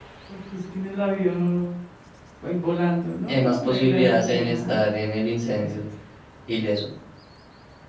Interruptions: present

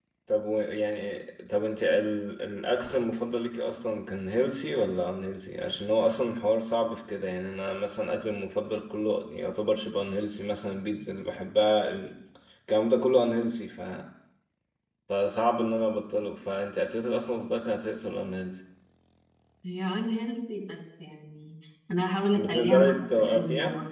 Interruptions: present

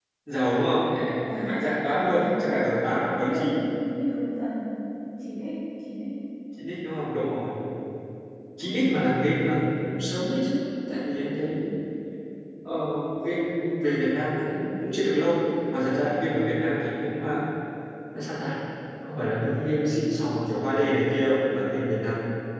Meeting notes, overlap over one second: present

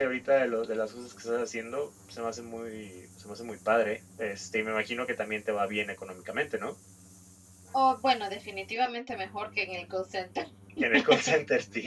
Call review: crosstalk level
none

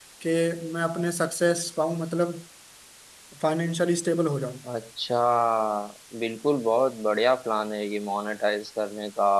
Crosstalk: none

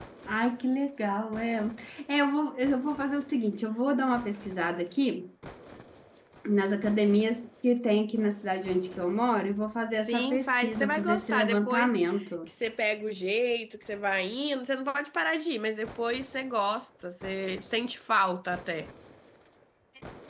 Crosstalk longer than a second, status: present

